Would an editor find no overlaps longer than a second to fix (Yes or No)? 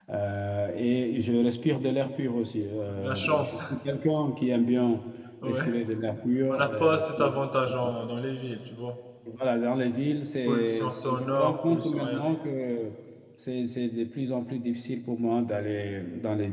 No